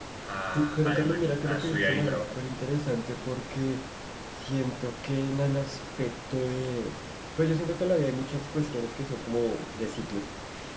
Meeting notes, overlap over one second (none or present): present